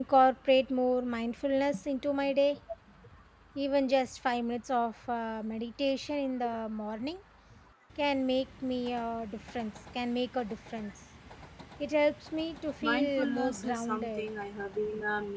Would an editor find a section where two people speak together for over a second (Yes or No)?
Yes